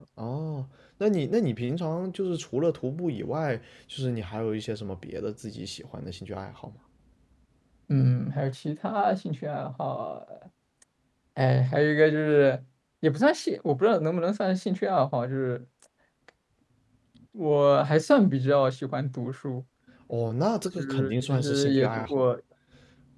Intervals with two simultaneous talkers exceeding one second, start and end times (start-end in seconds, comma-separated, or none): 20.8-22.2